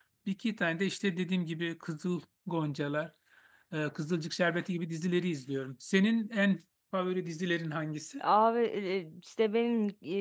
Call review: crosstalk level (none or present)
none